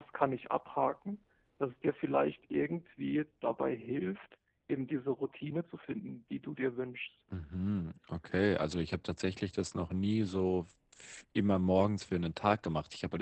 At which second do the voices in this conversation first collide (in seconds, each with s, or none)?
none